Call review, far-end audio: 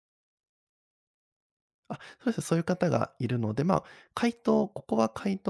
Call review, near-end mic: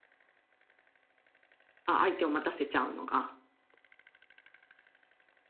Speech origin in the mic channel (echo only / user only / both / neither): user only